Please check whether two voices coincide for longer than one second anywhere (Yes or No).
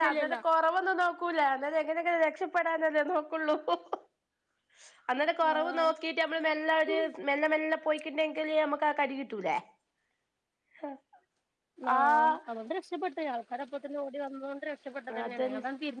No